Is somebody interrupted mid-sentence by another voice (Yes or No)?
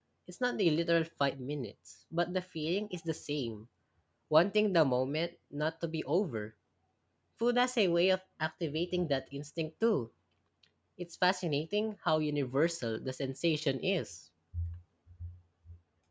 No